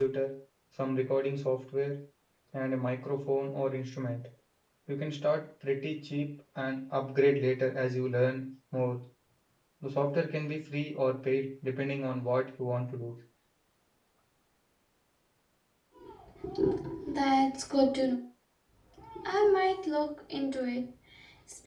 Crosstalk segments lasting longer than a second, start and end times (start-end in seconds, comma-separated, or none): none